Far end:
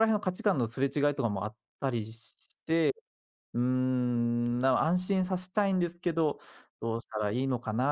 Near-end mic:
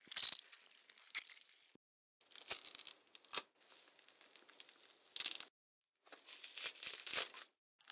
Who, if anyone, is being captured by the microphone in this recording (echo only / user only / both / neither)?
neither